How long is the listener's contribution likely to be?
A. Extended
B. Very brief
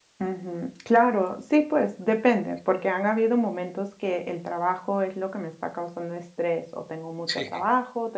B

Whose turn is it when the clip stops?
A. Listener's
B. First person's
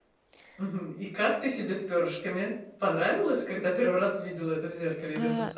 A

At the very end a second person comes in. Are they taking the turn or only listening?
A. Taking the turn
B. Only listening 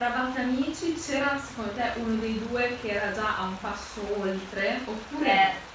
A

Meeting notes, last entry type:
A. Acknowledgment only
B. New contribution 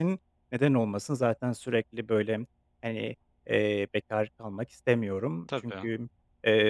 A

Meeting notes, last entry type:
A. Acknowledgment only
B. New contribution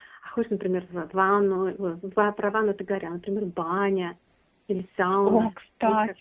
B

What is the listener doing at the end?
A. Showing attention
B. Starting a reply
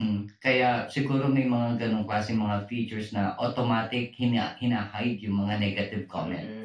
B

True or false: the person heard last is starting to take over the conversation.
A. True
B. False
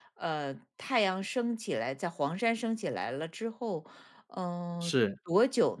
B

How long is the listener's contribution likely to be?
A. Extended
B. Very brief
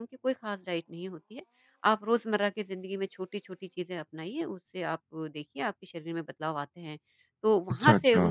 B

